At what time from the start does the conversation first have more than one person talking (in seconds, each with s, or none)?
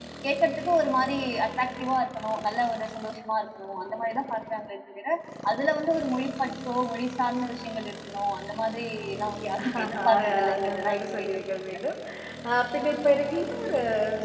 9.6 s